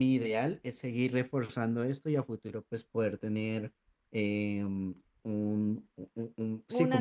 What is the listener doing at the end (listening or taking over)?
taking over